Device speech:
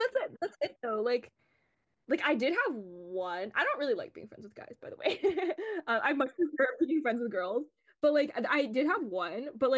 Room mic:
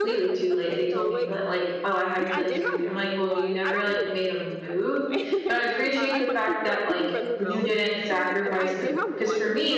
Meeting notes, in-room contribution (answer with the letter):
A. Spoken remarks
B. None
A